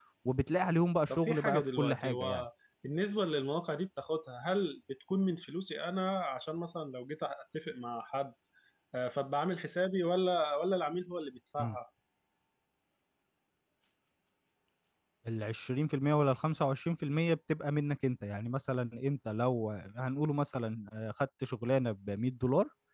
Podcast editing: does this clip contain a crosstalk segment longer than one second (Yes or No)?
Yes